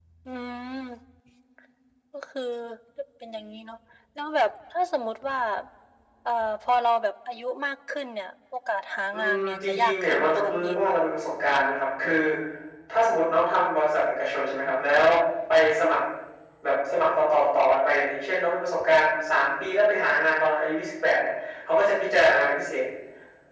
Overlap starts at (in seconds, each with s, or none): 9.1 s